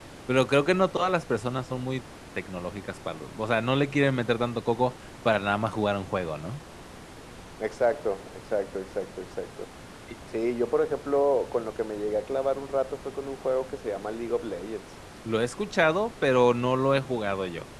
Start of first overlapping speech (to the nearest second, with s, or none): none